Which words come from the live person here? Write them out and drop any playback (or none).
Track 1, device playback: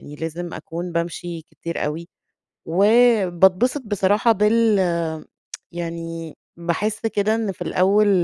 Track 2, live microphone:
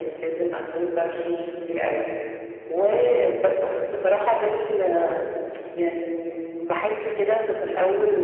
none